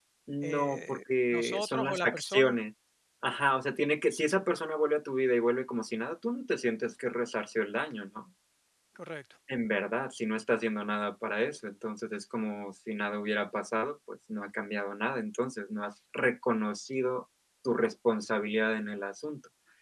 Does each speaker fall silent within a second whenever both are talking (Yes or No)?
No